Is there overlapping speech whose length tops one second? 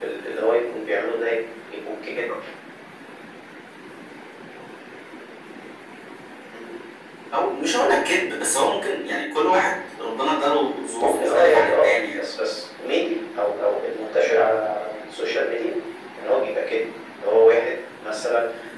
Yes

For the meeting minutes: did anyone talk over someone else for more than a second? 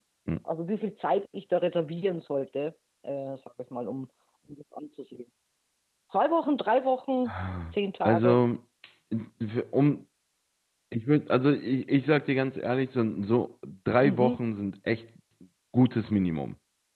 No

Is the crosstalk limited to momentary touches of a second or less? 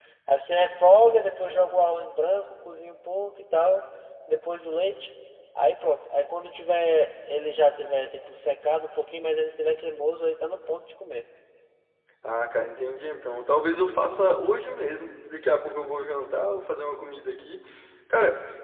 Yes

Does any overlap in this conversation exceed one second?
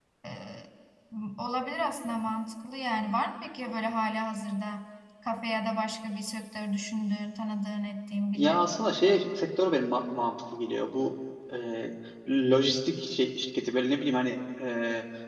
No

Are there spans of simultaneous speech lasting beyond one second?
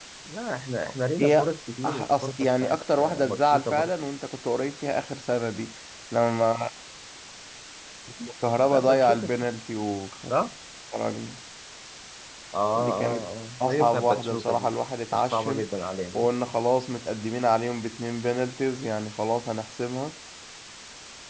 Yes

